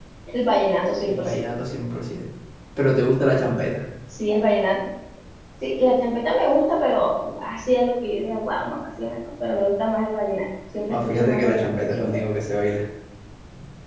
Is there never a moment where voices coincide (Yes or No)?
No